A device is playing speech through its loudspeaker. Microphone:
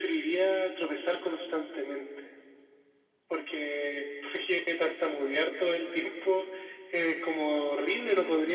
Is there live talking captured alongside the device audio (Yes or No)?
No